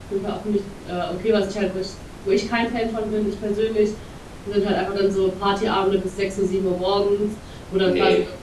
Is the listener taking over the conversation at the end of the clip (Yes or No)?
No